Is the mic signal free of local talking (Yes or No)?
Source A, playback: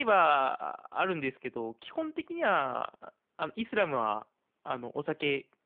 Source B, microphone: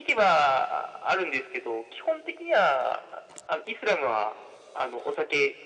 Yes